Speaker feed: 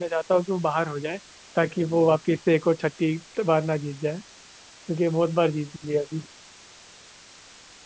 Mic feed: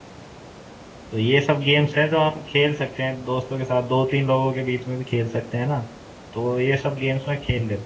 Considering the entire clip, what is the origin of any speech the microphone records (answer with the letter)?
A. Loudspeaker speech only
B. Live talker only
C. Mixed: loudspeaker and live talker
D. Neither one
B